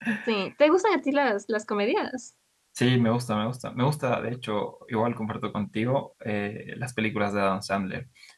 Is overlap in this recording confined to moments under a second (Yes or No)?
Yes